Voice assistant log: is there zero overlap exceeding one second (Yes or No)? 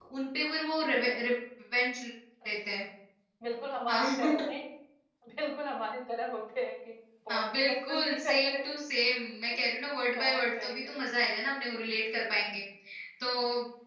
No